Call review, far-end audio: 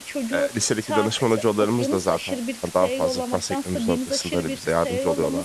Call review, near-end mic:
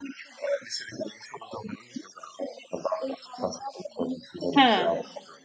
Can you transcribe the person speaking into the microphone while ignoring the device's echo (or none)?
He.